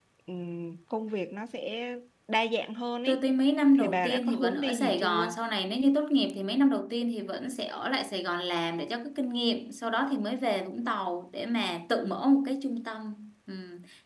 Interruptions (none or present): present